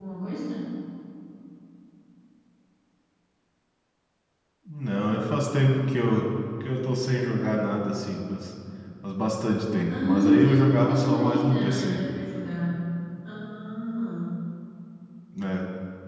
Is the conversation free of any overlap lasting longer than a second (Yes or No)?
No